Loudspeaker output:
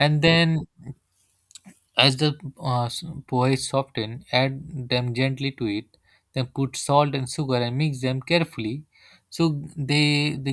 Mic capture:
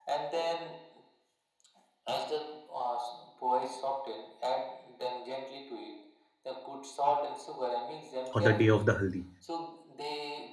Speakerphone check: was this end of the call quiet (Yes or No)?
No